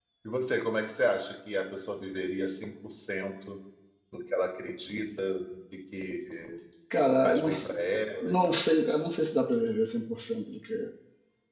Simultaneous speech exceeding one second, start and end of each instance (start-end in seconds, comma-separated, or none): none